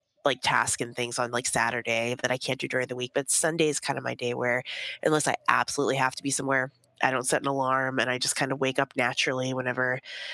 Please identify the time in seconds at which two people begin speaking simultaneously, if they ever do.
none

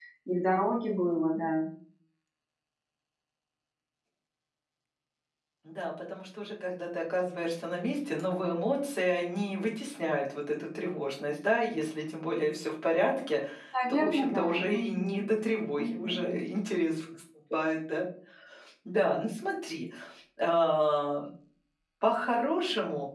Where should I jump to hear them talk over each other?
13.9 s

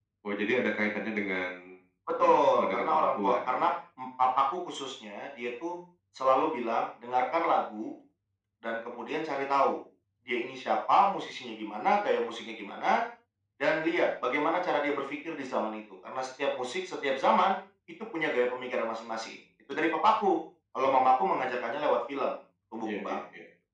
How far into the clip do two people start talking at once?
2.2 s

